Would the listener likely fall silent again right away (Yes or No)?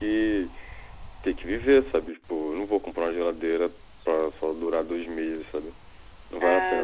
No